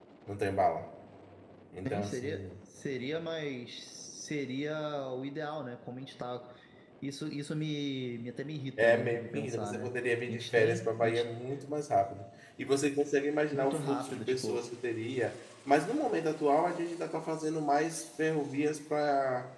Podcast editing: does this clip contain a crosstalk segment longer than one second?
Yes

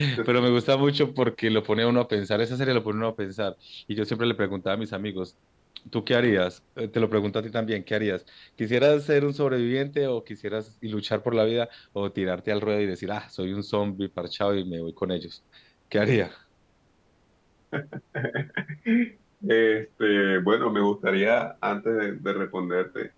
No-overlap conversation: Yes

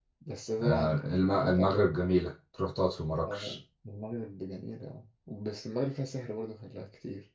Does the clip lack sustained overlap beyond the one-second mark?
No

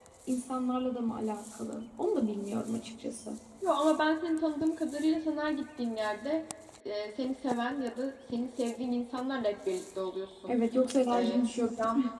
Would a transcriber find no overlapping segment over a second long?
Yes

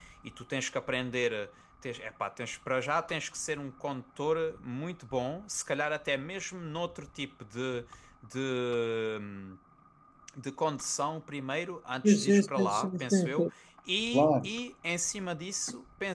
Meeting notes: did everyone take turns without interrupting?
No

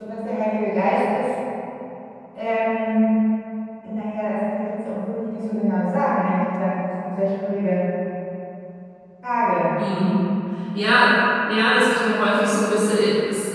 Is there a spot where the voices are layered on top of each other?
No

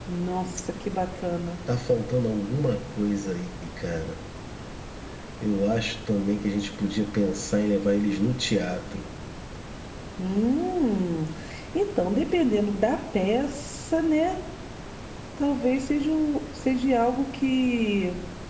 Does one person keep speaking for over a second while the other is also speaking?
No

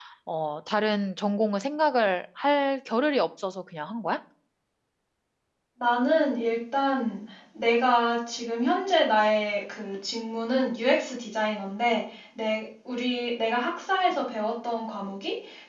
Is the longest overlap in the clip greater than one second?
No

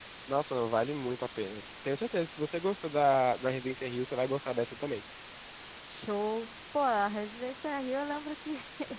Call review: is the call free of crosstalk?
Yes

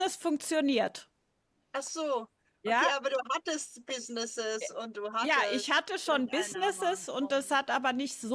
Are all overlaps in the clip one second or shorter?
No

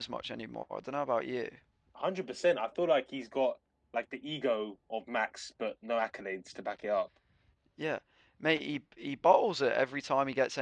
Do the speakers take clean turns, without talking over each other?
Yes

